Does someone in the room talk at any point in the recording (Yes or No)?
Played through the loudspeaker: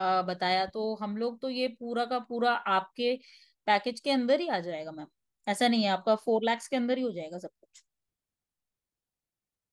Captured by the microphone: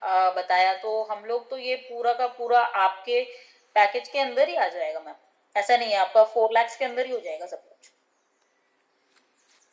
No